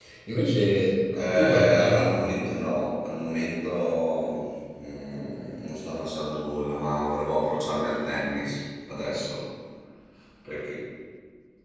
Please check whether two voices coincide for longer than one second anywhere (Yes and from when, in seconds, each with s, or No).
Yes, from 1.1 s